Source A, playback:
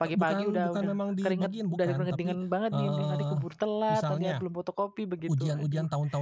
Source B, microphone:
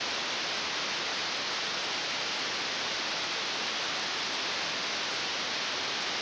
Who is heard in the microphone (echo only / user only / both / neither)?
neither